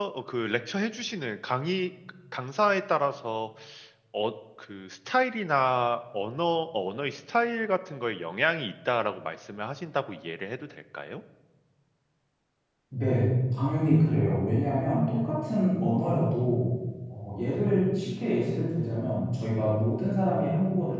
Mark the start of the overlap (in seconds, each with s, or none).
none